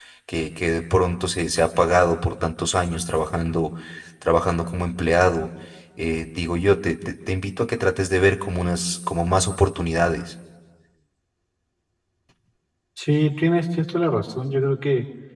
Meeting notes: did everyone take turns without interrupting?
Yes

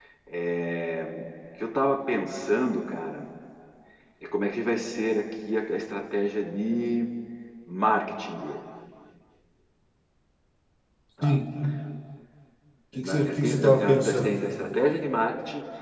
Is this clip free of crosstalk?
No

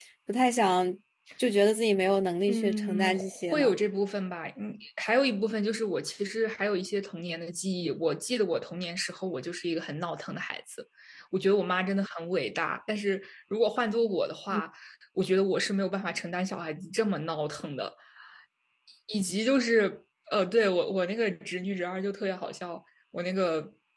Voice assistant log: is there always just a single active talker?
No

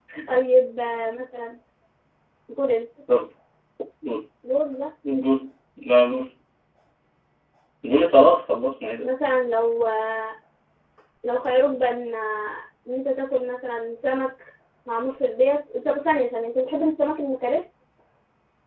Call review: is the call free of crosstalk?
Yes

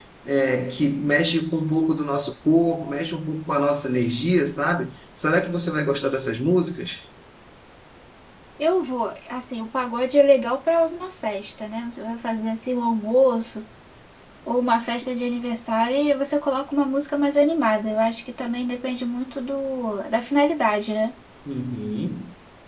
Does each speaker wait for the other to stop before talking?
Yes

